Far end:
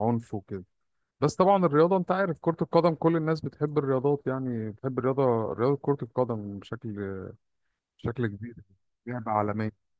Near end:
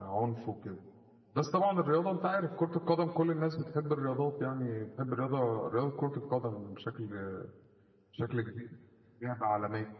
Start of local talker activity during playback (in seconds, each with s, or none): none